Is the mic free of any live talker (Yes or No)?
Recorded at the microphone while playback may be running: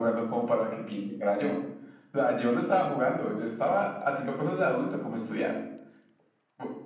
Yes